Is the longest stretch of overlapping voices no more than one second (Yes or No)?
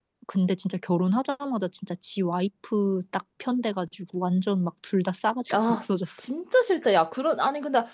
Yes